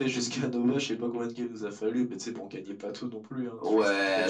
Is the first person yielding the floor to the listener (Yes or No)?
Yes